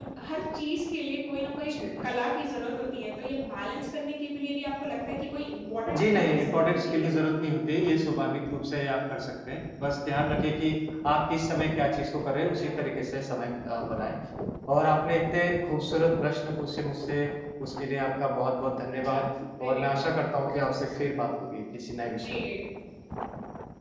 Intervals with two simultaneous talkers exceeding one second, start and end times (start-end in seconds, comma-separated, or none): 5.9-7.1